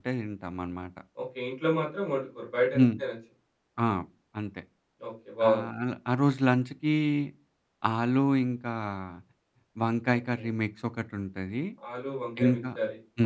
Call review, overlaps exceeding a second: none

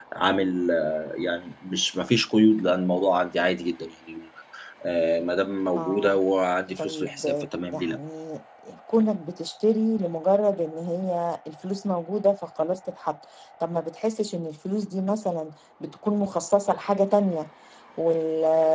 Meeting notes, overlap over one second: present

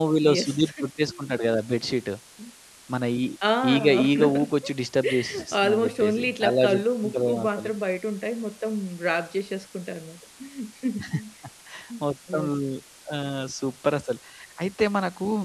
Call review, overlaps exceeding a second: present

